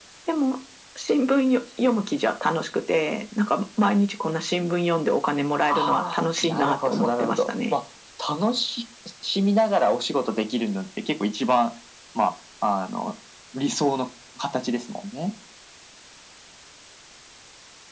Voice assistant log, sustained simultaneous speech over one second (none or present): present